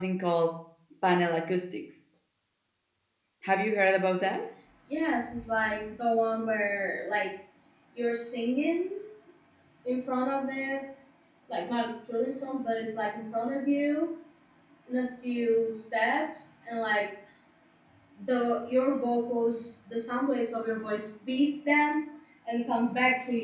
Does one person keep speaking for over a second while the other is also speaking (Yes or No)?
No